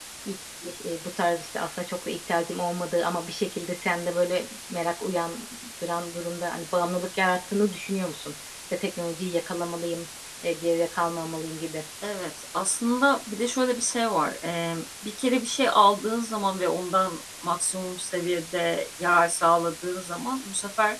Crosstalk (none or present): none